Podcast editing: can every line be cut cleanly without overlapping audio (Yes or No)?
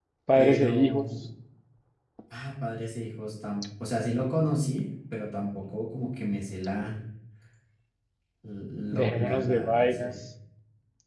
No